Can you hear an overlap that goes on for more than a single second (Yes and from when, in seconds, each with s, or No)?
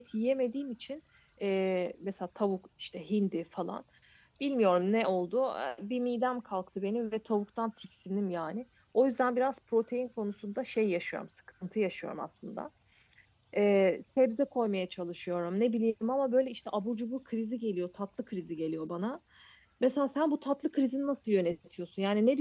No